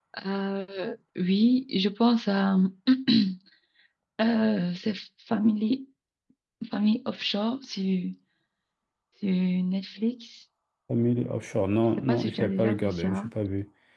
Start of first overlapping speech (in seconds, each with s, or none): 12.0 s